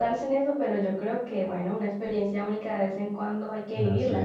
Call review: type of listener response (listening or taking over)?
taking over